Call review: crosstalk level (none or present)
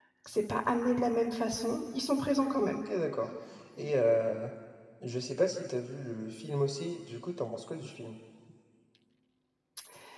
none